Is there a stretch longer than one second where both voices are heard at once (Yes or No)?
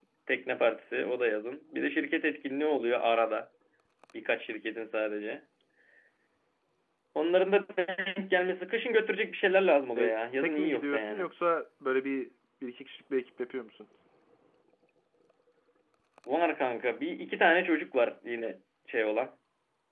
Yes